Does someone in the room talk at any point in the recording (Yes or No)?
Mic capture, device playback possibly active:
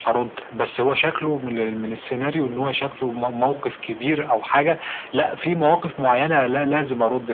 Yes